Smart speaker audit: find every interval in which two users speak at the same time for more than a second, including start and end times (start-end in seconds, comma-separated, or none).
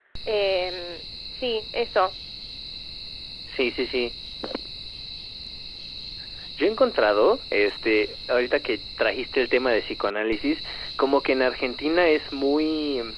none